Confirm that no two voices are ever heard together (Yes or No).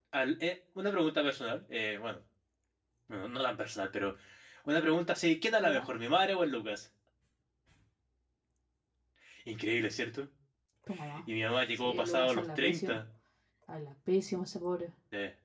No